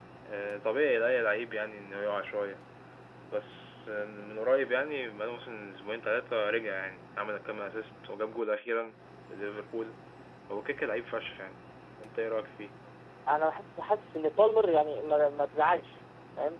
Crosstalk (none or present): none